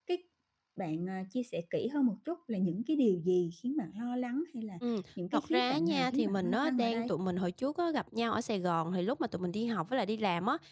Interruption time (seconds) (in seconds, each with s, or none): 5.3 s